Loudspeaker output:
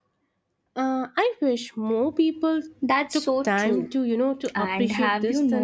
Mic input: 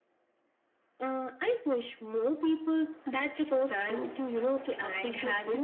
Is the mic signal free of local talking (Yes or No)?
Yes